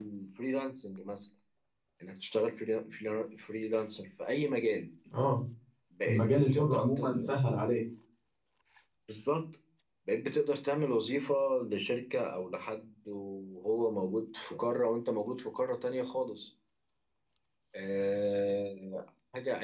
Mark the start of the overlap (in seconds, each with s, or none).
6.0 s